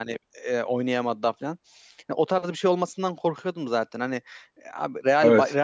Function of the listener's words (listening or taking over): listening